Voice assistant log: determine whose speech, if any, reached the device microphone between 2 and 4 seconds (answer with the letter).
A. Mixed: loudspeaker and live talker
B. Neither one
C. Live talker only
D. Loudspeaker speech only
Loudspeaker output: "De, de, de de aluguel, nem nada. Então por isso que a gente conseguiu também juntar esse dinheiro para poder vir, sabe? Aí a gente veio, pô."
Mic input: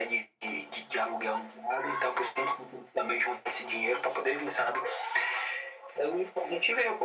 D